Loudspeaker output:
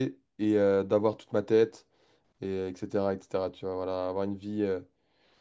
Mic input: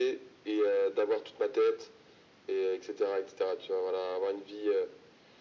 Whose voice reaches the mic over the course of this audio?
echo only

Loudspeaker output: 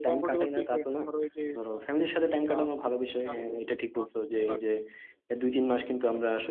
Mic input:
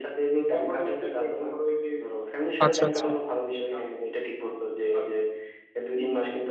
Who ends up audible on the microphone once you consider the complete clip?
both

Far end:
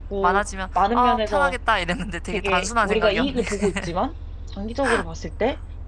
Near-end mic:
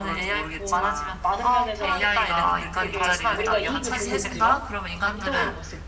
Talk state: both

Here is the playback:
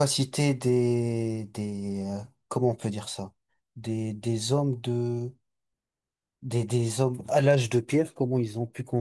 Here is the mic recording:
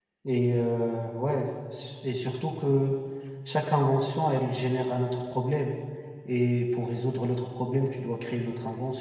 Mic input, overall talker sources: user only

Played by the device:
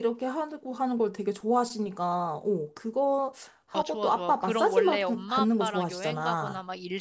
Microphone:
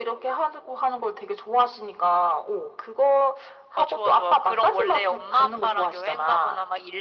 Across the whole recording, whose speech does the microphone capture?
echo only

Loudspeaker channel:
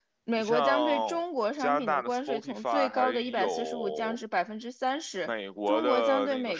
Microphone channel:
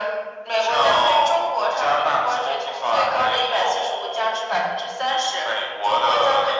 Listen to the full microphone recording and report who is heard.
echo only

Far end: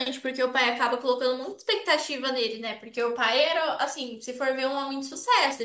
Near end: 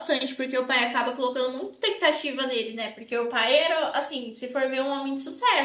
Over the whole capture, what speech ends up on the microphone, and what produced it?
echo only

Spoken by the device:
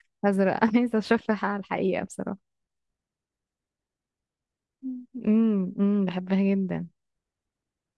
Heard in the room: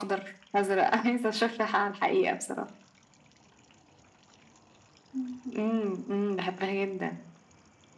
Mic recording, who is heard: echo only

